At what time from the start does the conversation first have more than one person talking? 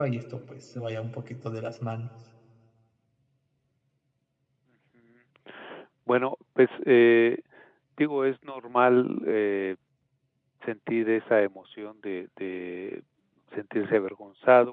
none

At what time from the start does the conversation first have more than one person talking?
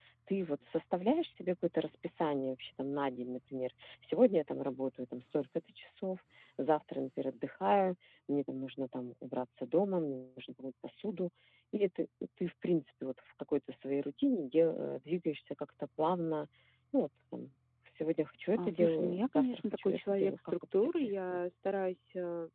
18.5 s

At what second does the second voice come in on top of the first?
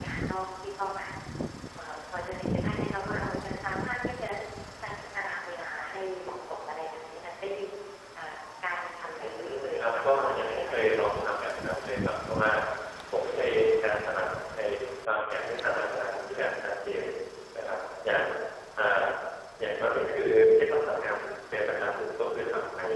9.2 s

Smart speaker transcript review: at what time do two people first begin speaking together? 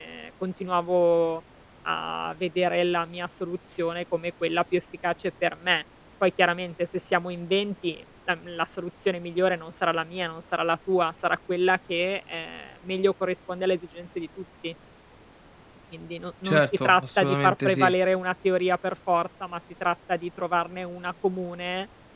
16.4 s

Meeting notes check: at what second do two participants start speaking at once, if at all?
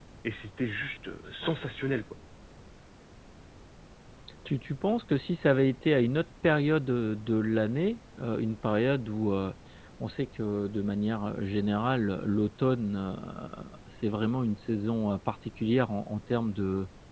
none

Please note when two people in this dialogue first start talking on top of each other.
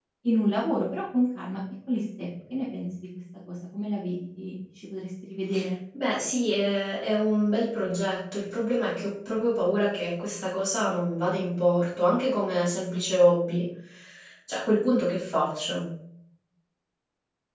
none

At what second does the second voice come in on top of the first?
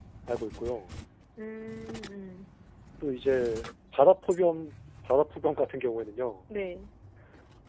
none

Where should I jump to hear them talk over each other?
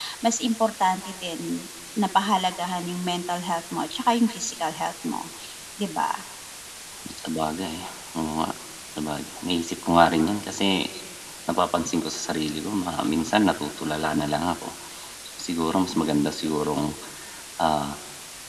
none

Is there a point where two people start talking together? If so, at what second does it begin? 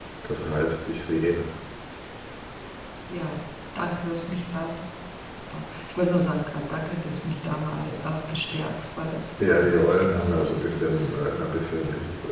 9.4 s

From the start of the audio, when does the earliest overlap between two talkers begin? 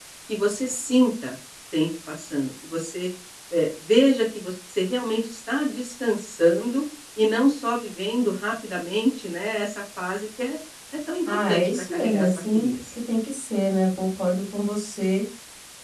11.3 s

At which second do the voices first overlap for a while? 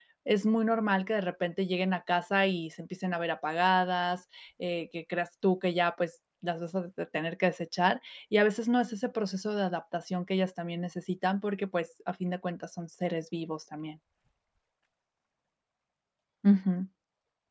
none

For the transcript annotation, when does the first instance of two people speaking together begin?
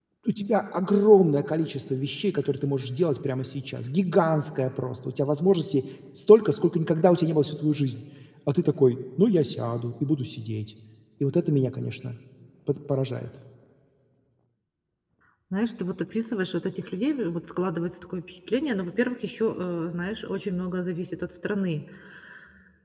none

